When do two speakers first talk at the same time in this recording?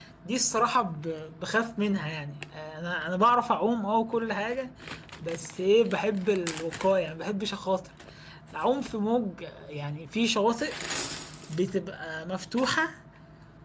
none

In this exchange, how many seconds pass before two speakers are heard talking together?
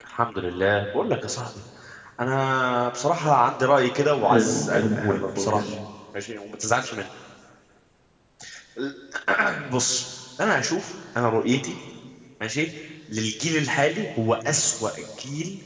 4.2 s

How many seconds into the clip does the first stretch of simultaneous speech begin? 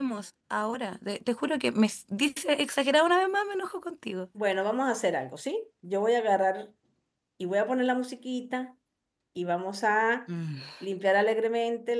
none

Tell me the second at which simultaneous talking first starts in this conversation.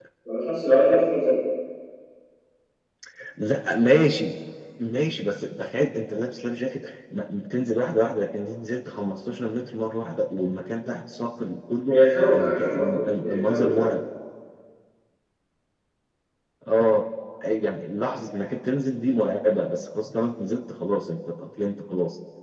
12.3 s

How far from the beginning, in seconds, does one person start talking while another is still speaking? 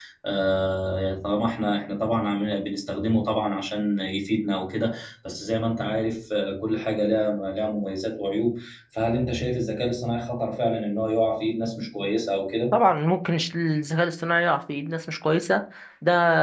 none

